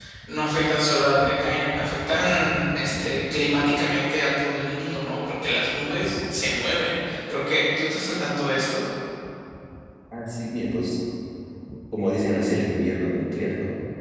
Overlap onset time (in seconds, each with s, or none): none